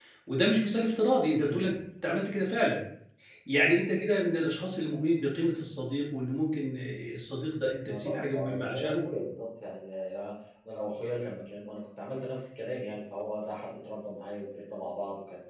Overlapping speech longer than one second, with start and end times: 7.8-9.0

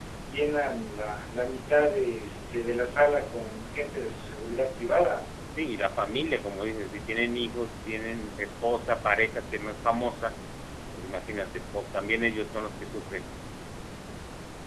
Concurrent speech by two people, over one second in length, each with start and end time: none

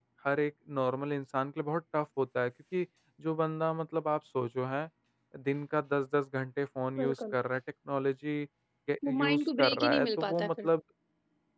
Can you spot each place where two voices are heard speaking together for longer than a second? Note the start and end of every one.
9.1-10.7

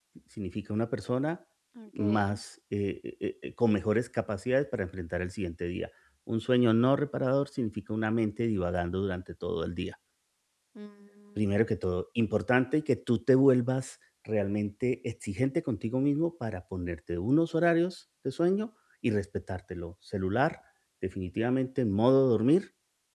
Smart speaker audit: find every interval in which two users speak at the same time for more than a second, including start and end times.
none

